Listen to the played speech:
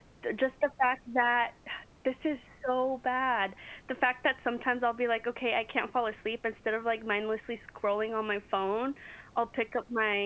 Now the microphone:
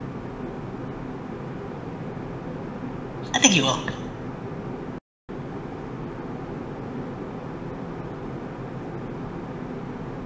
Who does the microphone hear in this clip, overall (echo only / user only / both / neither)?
user only